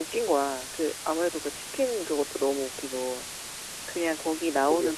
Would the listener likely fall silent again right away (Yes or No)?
Yes